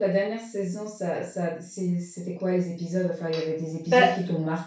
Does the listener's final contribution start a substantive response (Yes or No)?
No